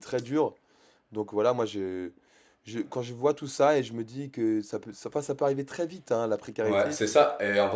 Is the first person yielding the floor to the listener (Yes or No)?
Yes